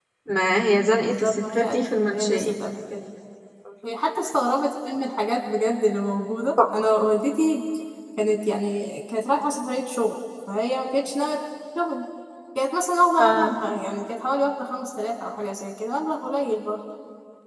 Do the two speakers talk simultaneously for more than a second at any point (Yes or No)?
Yes